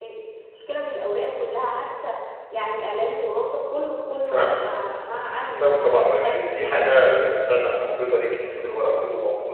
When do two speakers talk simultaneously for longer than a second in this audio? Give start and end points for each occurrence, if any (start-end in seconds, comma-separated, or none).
5.1-6.4